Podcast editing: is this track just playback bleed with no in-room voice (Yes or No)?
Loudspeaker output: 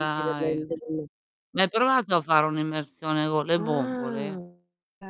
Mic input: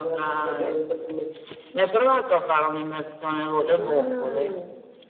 Yes